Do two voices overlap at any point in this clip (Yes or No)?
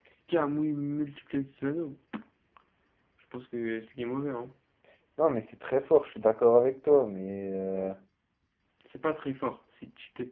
No